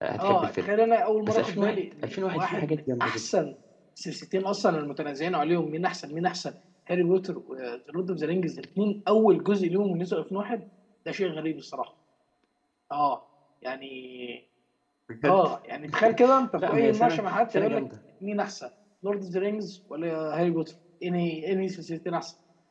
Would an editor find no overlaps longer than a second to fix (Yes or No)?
No